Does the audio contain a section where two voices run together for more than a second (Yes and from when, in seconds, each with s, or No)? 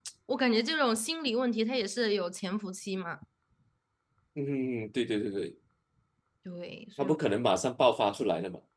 No